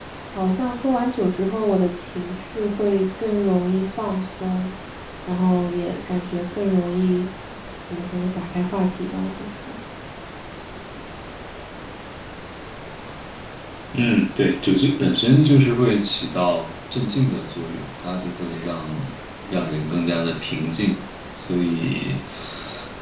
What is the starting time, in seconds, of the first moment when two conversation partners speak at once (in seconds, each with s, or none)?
none